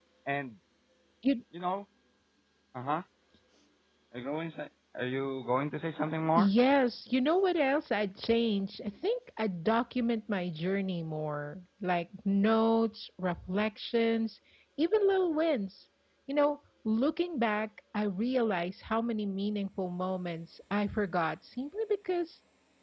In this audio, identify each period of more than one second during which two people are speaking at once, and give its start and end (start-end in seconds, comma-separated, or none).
none